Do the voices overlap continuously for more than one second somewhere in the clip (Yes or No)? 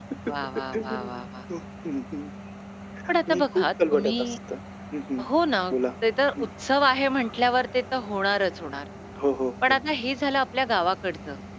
Yes